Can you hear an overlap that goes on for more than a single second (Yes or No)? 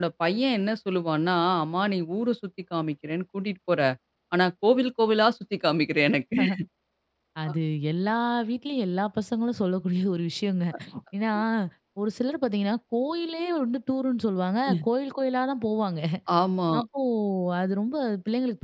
No